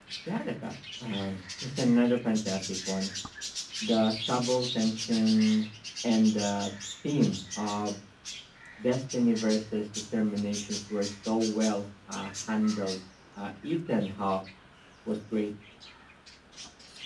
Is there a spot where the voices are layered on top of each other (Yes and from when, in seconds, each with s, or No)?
No